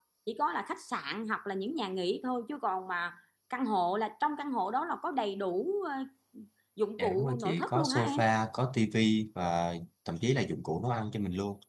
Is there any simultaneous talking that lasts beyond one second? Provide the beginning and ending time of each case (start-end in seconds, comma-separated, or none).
7.0-8.2